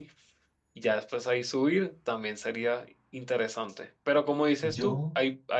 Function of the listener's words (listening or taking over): listening